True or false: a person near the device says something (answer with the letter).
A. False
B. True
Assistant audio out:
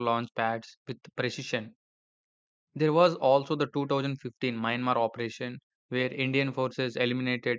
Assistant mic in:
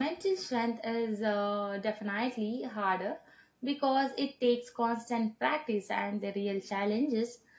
B